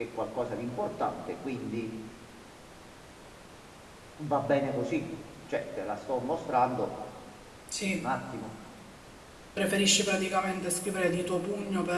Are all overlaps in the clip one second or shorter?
Yes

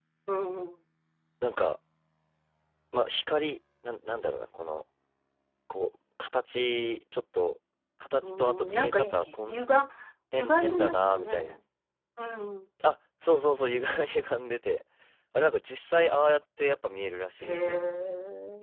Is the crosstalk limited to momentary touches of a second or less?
No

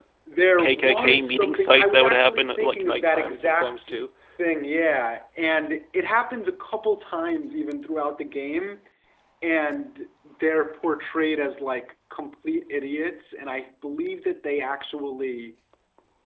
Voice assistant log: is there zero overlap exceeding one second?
No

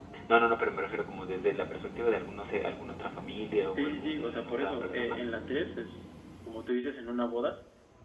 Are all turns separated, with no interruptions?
No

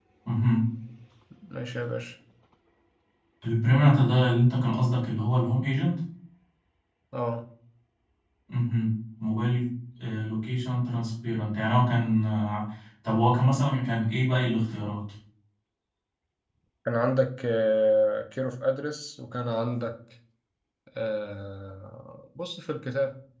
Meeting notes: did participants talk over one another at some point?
No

